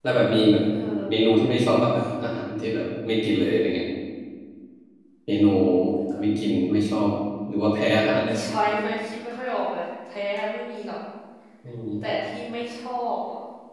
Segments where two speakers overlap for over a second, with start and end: none

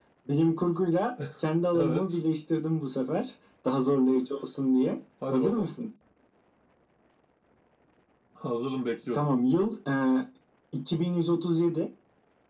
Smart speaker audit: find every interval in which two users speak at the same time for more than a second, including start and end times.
none

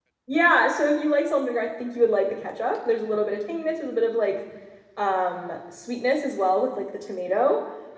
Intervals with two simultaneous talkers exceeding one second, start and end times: none

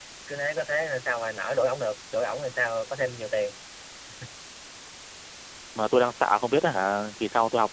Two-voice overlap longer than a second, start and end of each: none

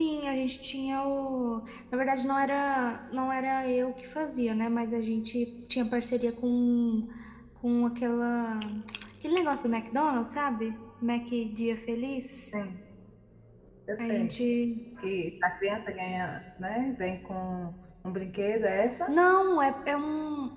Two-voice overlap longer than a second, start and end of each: none

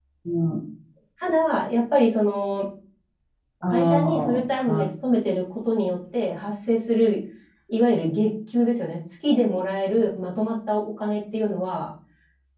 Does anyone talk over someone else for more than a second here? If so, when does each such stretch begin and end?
3.6-4.8

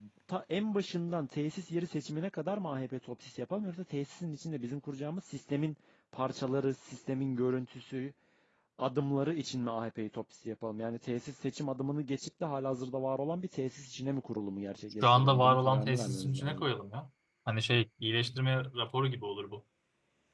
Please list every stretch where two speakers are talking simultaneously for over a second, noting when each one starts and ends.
15.0-16.7

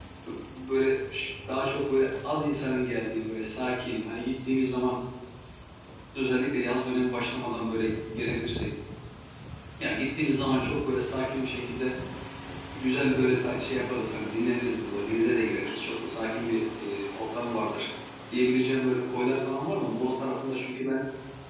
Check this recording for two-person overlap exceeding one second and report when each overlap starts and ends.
none

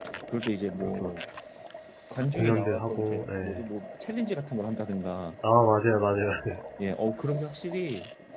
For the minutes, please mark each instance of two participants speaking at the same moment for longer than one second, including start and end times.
2.3-3.6

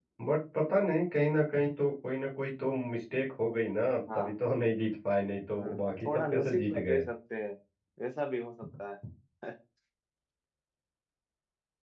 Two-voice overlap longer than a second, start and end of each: 5.5-7.0

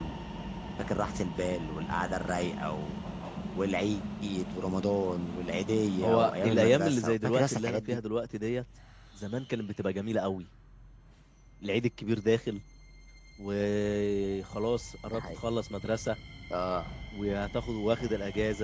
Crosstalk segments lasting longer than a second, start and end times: 6.0-8.0

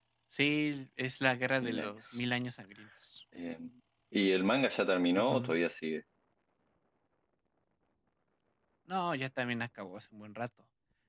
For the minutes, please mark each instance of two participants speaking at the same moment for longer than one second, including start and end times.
none

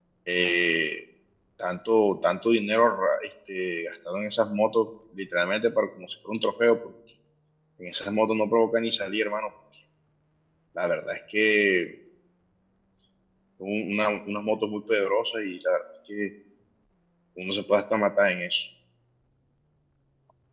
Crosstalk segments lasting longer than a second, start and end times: none

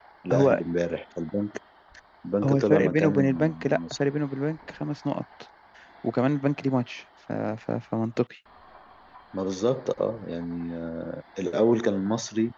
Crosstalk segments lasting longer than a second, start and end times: 2.4-4.0

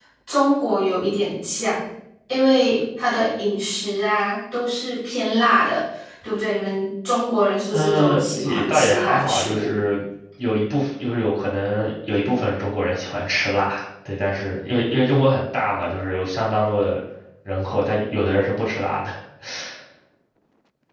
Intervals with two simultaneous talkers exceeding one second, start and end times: 7.7-9.7

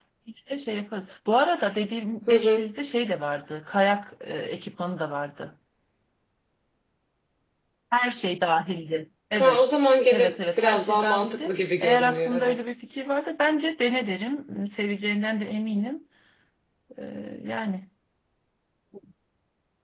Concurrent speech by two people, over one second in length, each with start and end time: 10.1-12.6

